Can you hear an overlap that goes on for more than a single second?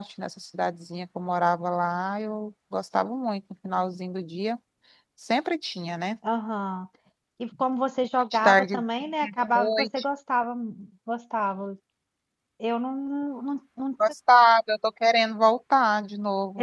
No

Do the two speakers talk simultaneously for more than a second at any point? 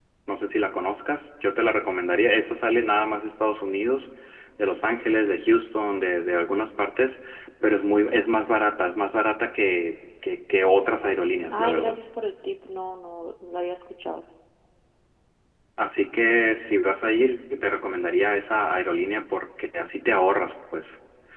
No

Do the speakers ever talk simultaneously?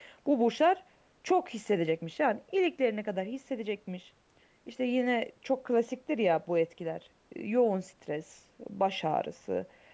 No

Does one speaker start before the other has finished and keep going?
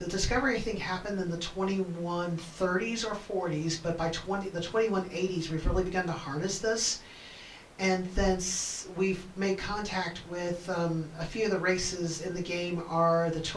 No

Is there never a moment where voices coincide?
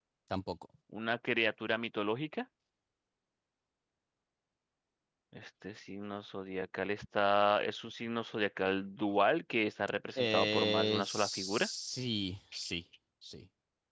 No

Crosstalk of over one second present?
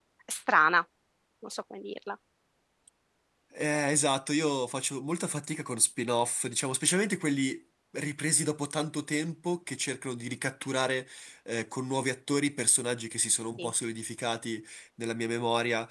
No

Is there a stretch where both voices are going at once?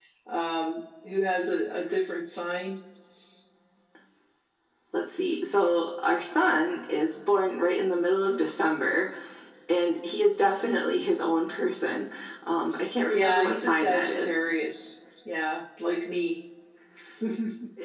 Yes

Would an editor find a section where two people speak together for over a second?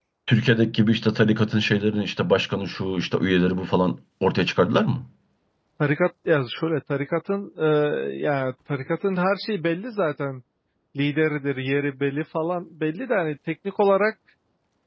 No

